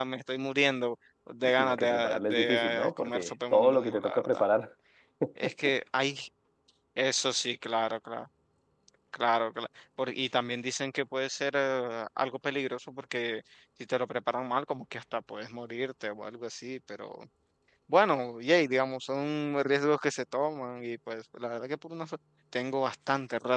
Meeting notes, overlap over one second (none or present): present